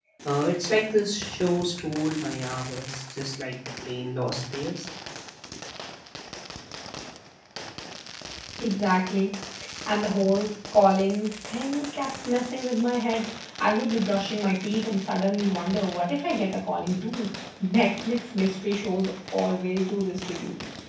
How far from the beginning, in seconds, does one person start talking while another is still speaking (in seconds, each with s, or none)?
none